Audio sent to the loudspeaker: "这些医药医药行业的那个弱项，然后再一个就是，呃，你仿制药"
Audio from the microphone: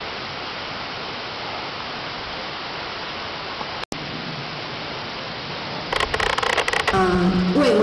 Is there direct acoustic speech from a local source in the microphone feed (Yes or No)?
Yes